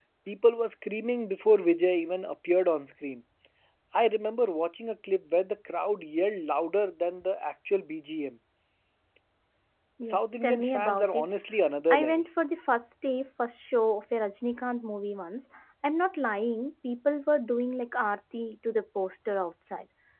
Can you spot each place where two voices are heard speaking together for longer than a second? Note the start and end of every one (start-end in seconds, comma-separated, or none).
10.0-11.3